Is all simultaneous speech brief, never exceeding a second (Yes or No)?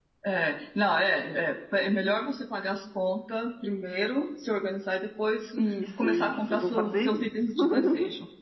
No